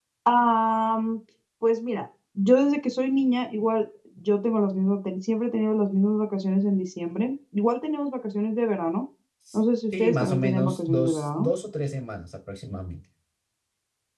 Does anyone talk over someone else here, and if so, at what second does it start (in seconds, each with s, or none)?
10.0 s